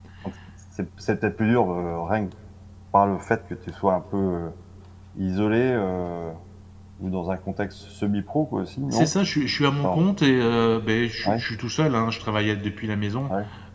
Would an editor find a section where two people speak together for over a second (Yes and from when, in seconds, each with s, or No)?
No